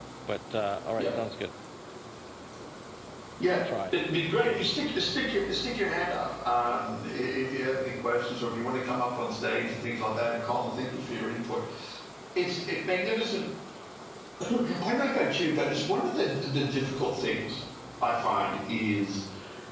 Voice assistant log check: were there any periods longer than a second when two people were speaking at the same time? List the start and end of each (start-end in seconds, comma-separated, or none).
none